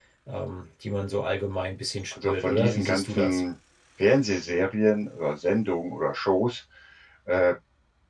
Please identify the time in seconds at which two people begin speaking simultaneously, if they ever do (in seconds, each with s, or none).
2.1 s